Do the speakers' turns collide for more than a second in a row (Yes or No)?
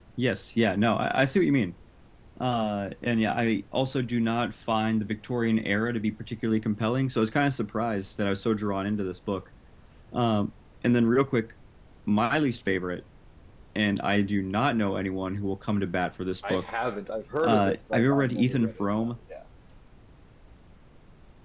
Yes